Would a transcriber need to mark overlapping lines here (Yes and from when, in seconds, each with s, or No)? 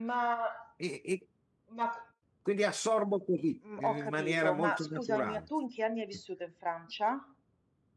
Yes, from 3.6 s